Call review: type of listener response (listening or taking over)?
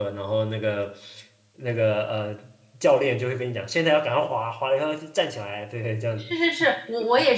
taking over